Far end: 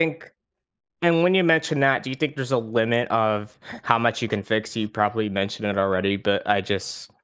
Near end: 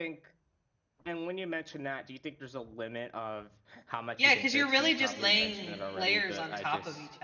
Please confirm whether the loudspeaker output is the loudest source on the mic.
No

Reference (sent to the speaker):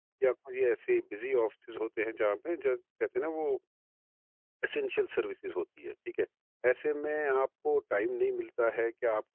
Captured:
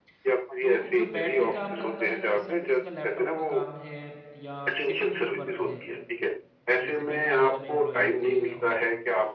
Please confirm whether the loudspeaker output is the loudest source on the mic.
Yes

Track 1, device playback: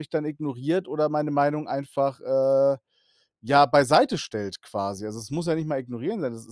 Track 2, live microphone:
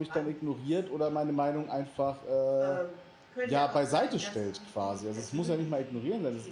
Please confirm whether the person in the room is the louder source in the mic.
No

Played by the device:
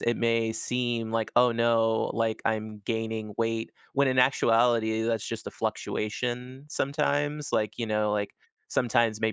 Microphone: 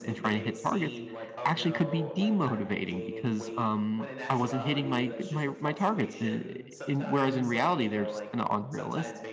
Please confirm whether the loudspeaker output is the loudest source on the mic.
No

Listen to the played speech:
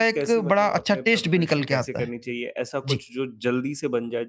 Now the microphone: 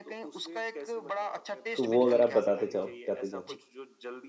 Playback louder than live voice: No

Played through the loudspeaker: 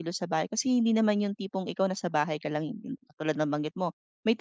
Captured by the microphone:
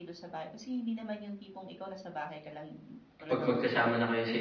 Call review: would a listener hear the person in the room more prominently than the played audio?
Yes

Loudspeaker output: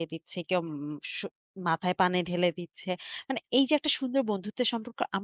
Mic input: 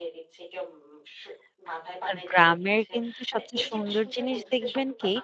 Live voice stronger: Yes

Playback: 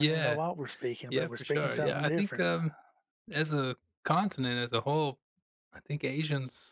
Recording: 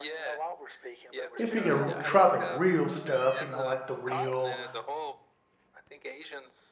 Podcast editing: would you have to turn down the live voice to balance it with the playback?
Yes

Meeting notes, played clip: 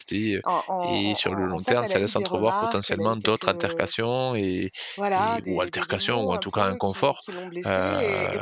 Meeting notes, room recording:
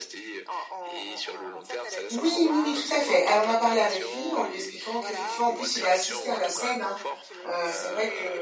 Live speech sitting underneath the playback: No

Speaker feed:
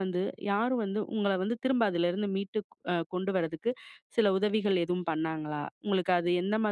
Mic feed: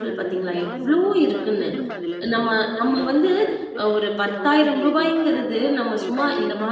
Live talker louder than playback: Yes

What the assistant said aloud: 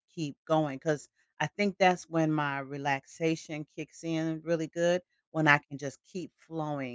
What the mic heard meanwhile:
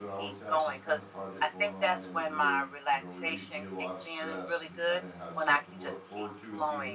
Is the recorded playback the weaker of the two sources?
No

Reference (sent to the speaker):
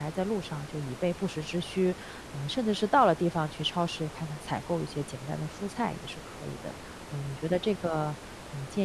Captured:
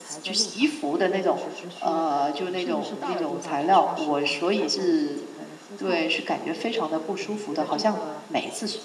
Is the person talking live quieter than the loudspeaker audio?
No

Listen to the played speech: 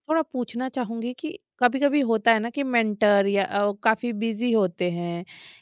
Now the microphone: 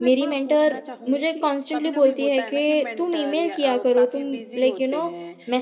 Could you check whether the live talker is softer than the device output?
No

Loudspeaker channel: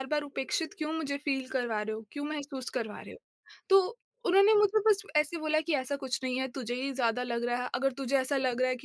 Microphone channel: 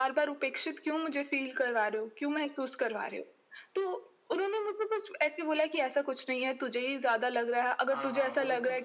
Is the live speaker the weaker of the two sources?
Yes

